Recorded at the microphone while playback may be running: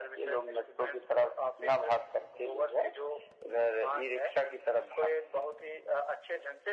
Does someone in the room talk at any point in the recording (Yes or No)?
No